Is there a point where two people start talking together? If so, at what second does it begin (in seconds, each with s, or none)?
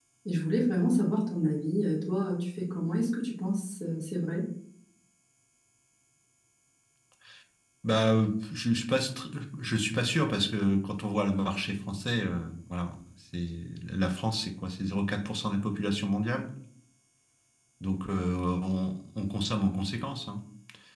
none